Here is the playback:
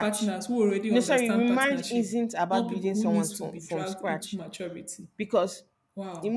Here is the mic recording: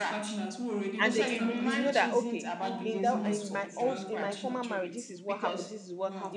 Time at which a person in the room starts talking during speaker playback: 1 s

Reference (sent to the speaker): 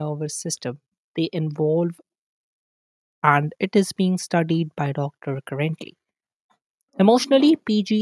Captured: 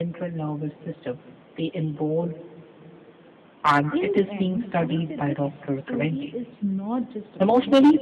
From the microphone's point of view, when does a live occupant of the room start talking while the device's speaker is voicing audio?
4 s

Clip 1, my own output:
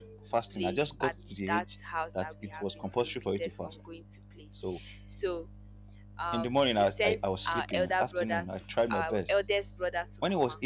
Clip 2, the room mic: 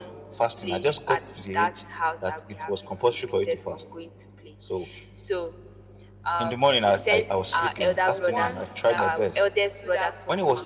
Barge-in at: 8 s

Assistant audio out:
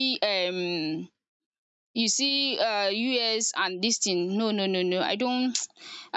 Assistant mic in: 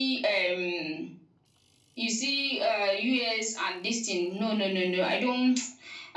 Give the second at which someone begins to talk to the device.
none

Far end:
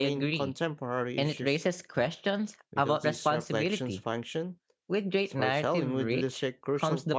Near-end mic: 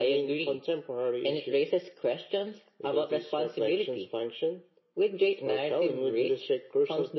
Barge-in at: none

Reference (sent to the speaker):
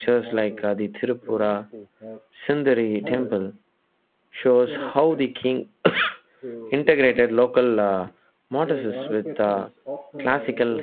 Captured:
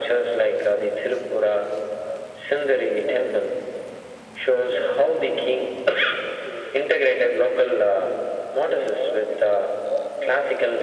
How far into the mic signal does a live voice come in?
none

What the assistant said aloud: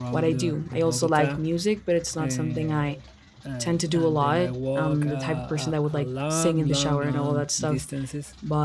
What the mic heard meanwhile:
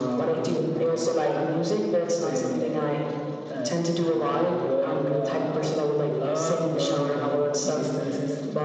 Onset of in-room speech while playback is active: none

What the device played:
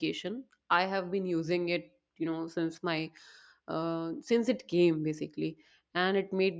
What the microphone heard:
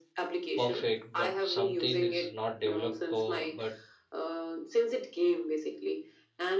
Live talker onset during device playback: 1 s

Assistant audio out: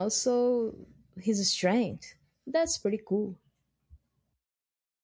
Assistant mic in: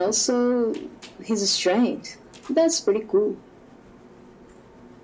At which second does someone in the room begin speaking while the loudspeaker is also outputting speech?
none

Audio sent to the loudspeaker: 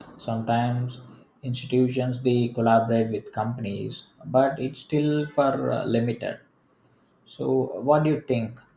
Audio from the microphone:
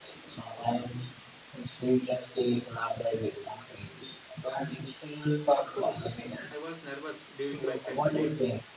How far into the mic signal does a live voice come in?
6 s

